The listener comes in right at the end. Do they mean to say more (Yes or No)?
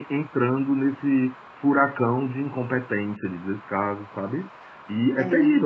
No